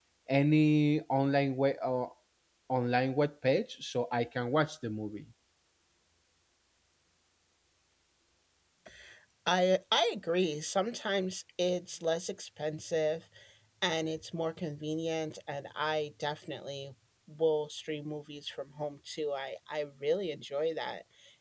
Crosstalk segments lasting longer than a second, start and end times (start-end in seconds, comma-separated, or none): none